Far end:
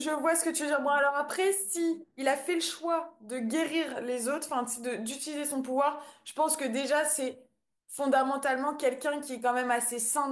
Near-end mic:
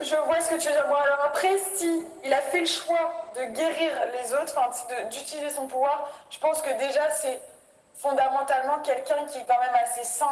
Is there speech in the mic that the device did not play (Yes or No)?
No